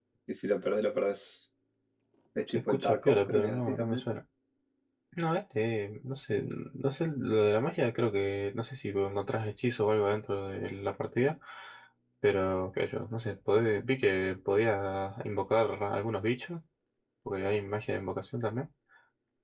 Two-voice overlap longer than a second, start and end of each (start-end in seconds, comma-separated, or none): 2.5-4.1